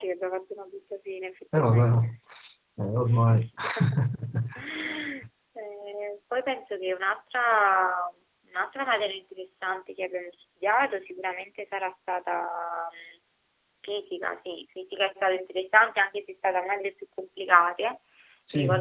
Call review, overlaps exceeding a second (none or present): none